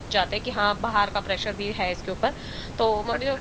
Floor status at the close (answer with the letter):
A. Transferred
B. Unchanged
B